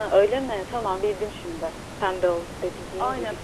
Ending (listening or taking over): taking over